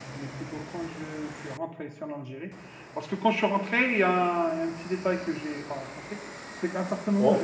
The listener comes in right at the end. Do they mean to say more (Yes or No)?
No